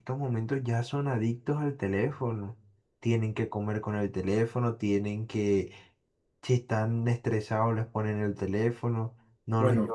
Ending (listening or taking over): listening